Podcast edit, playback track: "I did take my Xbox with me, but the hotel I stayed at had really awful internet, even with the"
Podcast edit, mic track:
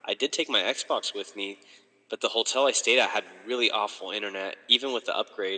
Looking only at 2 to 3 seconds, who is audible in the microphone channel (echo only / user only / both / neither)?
echo only